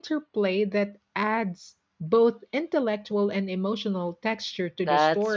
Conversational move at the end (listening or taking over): taking over